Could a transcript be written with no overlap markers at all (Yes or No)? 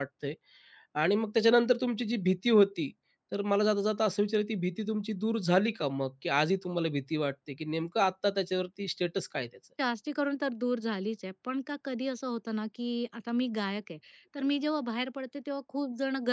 Yes